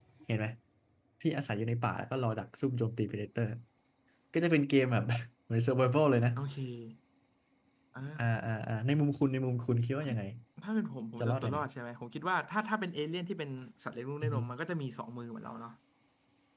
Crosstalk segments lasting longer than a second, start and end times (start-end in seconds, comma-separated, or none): none